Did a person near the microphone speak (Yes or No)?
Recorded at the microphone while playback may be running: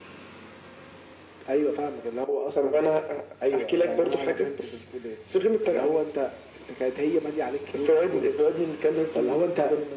No